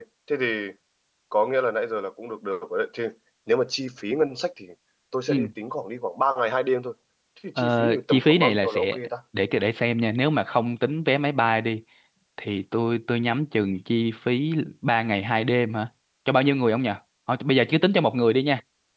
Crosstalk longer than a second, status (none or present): present